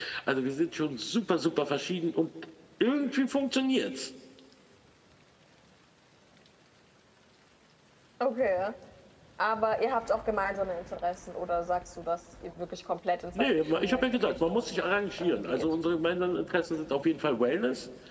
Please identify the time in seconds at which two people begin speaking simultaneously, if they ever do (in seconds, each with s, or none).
13.3 s